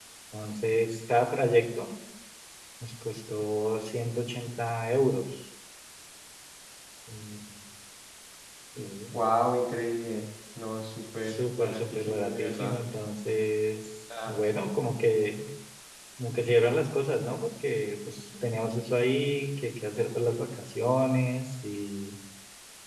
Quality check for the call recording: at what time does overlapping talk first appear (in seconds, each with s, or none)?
11.3 s